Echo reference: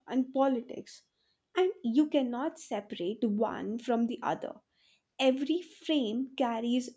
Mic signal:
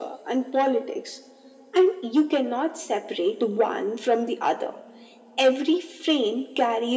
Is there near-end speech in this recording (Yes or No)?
No